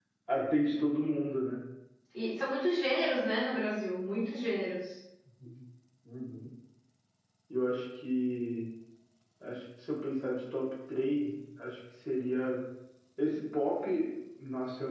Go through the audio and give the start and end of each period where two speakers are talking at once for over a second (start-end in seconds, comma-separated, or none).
none